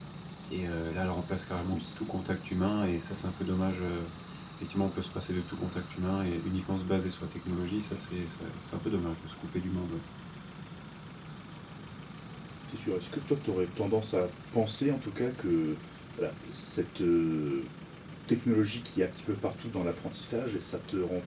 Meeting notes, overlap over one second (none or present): none